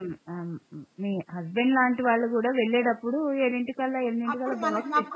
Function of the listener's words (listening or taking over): taking over